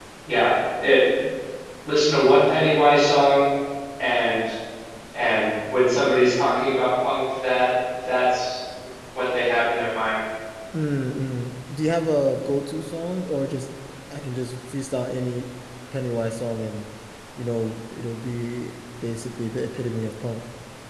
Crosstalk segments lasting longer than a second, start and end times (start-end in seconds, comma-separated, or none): none